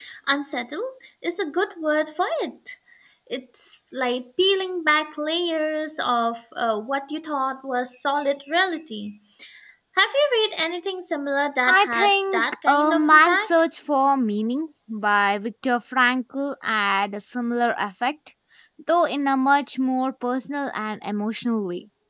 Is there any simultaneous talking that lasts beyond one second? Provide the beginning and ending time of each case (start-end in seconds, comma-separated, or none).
11.7-13.5